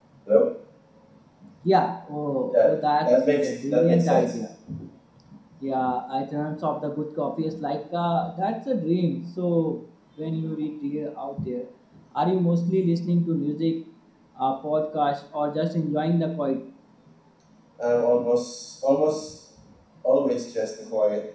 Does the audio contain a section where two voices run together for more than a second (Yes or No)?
Yes